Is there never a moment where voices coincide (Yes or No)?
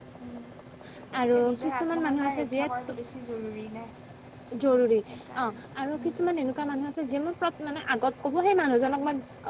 No